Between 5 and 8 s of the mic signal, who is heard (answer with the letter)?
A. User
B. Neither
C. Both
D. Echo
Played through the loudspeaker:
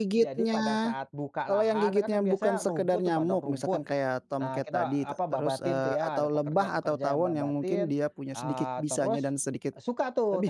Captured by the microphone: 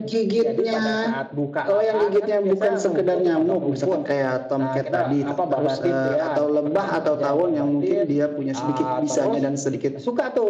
D